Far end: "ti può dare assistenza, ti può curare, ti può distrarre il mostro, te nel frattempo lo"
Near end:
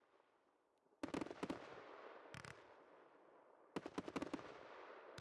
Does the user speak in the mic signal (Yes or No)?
No